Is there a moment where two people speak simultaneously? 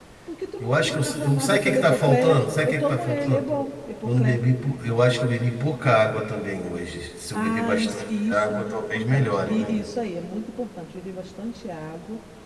Yes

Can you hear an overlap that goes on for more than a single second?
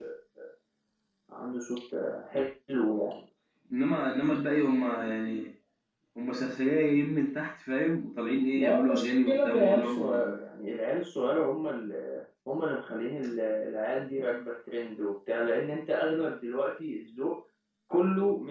Yes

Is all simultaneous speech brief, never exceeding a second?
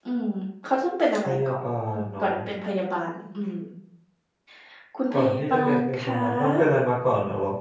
No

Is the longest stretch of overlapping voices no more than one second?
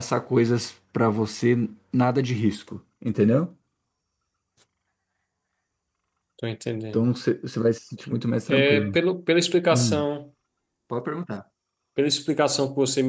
Yes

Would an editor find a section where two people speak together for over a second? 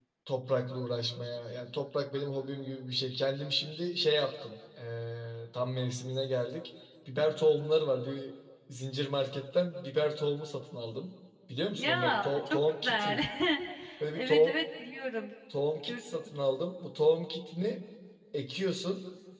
Yes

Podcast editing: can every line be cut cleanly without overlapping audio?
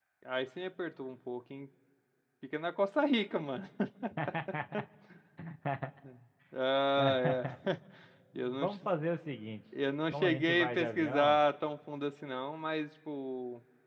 No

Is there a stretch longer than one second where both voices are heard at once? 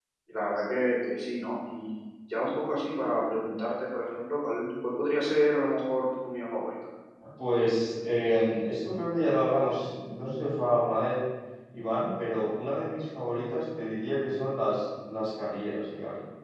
No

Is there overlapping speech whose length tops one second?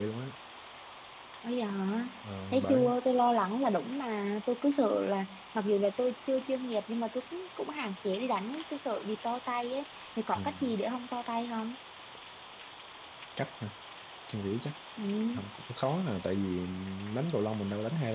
No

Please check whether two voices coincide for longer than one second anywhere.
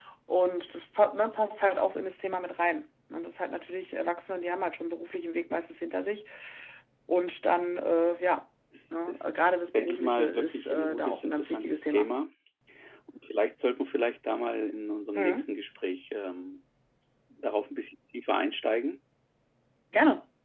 Yes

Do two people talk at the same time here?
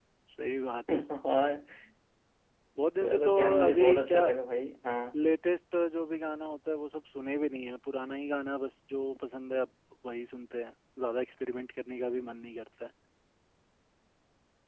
Yes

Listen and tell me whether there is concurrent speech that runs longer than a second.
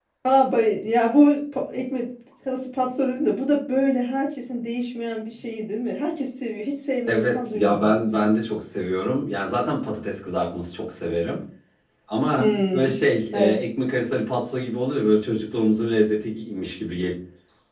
Yes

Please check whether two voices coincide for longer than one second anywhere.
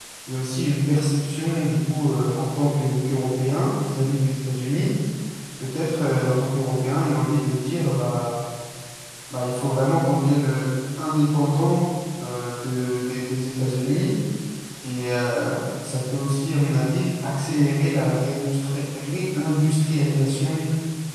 No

